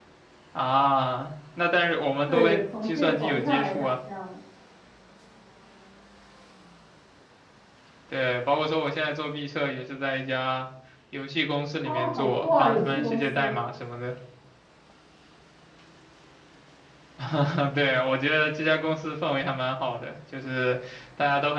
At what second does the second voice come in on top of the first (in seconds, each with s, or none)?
2.3 s